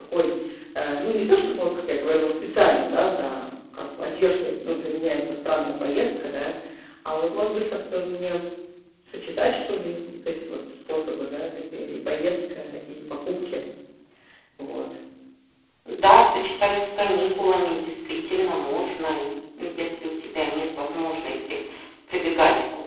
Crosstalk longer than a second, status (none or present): none